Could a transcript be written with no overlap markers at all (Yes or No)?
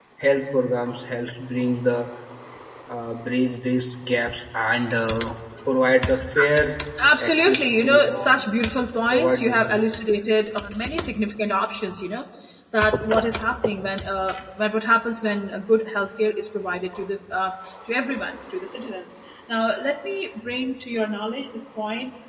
No